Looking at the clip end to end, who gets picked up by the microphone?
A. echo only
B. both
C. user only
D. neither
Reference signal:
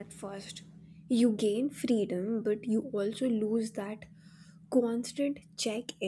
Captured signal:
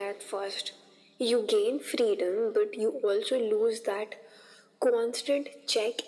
A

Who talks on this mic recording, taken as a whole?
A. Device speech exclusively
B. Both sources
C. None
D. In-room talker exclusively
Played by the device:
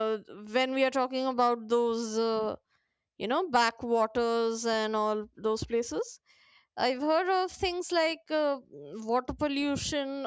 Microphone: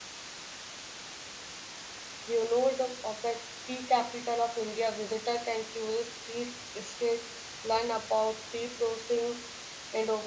D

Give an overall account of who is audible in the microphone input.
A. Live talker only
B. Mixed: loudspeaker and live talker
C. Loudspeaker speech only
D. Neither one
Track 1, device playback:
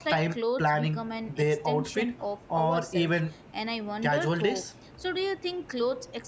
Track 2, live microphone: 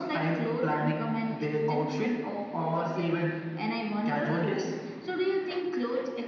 C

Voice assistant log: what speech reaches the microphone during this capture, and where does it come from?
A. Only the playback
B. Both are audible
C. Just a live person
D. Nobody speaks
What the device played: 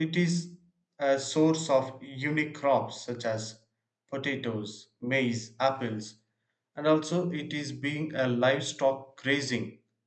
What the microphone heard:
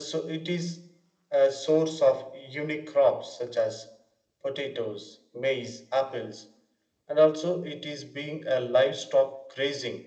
A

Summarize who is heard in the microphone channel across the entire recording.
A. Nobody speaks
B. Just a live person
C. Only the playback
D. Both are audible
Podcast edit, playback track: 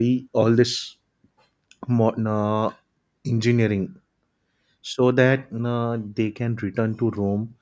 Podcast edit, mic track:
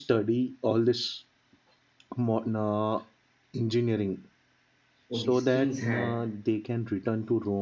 D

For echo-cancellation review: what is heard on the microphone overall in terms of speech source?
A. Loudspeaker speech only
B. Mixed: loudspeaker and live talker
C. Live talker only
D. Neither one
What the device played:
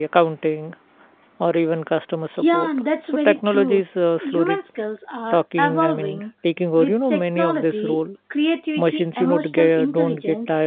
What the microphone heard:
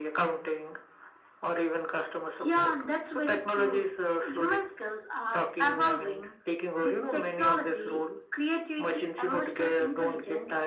A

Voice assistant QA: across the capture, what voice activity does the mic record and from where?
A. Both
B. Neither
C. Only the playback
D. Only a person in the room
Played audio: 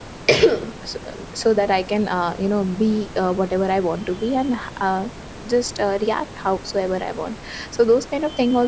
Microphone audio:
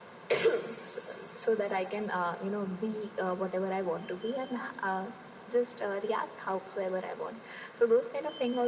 C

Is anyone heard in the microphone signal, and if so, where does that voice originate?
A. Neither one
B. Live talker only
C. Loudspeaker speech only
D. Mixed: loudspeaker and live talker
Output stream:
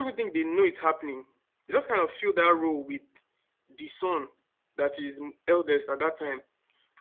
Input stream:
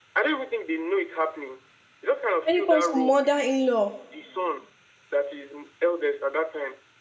D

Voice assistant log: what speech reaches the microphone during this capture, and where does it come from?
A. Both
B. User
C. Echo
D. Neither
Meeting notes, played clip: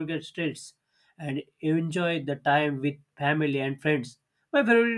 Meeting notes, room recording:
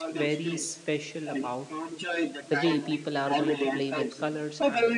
A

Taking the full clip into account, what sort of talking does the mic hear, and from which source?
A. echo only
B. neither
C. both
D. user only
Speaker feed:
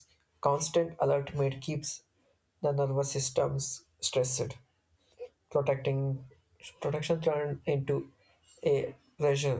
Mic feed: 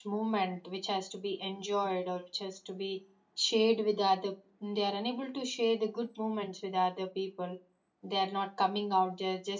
D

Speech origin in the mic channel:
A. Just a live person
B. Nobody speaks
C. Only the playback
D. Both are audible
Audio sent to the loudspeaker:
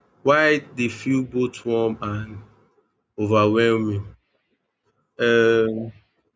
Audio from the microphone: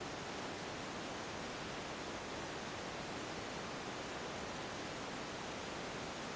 B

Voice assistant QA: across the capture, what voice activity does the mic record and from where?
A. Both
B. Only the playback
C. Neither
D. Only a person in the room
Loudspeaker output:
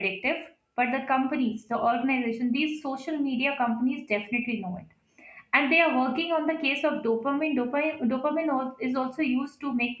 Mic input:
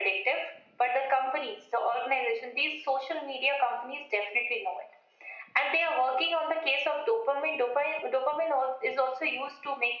B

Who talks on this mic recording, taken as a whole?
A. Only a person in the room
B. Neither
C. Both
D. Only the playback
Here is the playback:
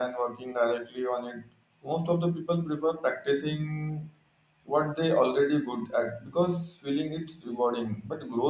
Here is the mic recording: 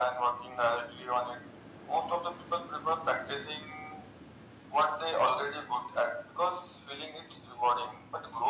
D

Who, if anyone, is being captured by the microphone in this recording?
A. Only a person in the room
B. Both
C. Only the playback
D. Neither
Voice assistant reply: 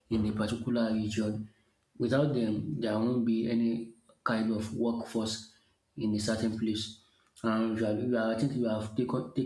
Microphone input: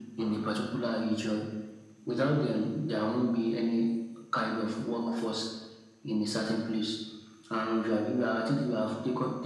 C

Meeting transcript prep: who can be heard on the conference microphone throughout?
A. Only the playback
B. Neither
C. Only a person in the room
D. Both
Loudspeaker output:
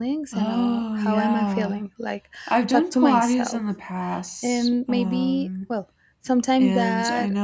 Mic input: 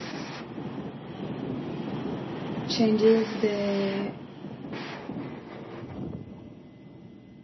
C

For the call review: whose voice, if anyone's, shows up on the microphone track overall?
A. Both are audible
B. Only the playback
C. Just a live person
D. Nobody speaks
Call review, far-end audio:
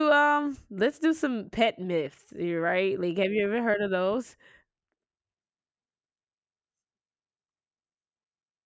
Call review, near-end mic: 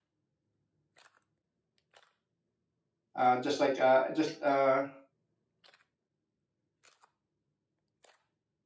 C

